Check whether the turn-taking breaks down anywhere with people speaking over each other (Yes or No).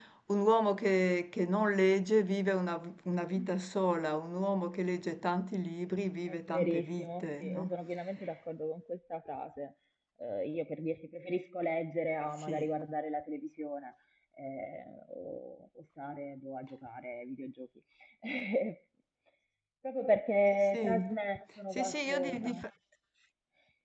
Yes